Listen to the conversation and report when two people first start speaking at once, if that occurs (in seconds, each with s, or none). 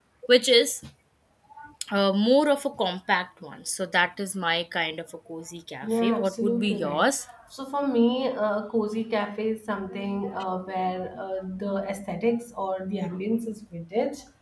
5.8 s